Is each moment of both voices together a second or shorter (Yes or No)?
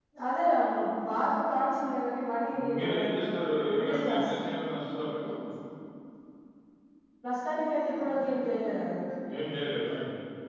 No